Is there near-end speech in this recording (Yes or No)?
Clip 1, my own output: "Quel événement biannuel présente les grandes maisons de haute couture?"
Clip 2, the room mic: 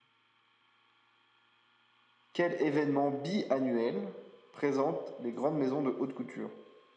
No